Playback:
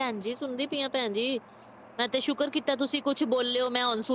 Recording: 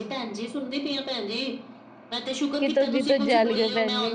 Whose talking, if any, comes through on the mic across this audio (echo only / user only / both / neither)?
both